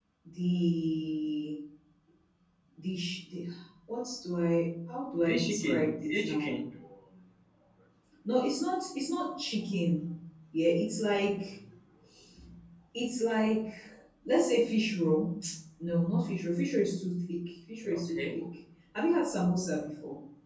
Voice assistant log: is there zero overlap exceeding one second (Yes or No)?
No